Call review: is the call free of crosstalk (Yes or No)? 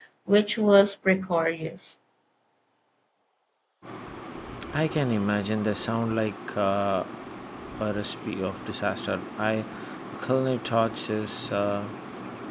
Yes